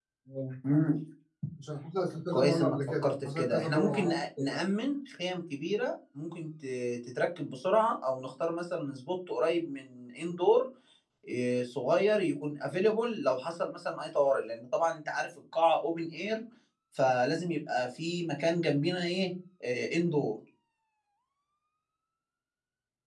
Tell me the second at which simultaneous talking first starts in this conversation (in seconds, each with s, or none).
2.3 s